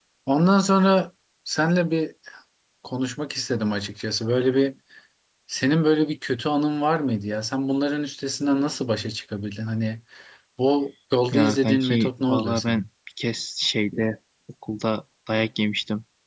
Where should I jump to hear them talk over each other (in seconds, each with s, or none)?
11.3 s